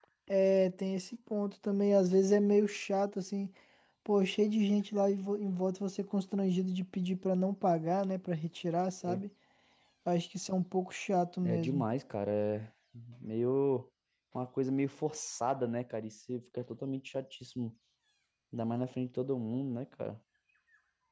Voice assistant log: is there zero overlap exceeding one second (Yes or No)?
Yes